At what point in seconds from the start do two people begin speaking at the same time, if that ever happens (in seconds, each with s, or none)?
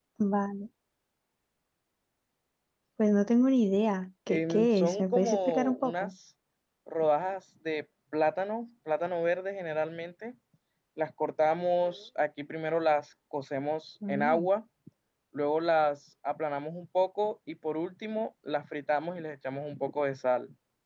4.3 s